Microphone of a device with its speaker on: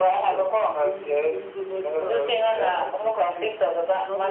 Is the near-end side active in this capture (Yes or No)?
Yes